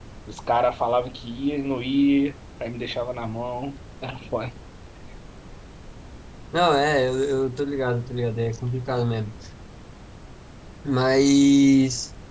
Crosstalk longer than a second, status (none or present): none